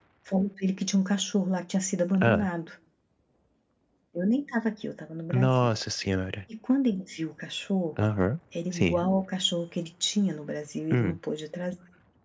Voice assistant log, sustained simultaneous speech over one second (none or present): none